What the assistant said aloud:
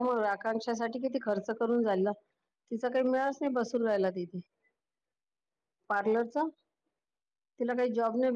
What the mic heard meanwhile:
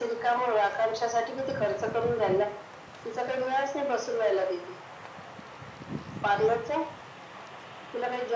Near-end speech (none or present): none